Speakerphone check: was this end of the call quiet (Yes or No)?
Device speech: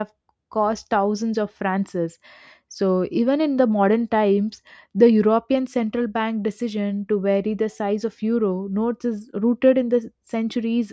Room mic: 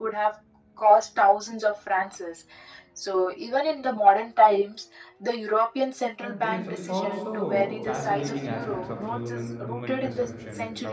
No